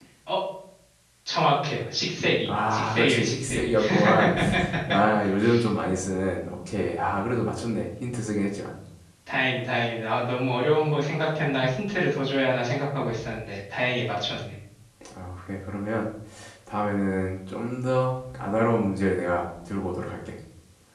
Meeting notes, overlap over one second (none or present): present